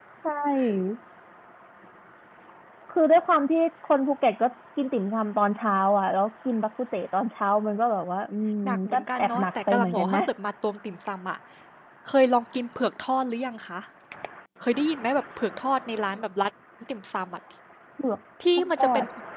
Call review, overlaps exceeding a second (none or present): present